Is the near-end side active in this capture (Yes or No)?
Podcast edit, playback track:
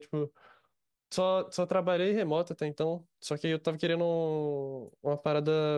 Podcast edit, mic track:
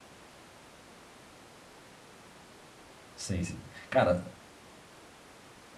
Yes